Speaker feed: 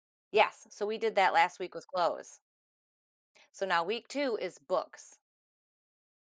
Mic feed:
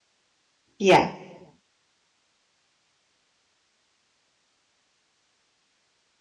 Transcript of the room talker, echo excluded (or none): Yeah.